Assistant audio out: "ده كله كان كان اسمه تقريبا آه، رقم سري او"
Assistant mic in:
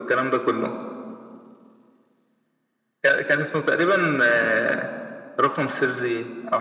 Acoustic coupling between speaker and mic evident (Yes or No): Yes